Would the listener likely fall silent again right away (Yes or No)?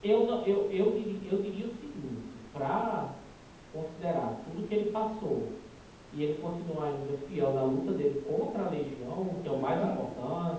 Yes